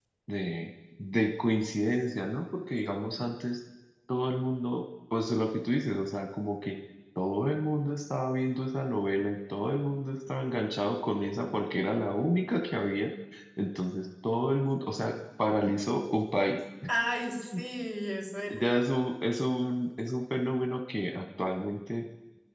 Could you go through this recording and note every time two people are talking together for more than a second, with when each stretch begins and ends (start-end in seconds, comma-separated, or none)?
none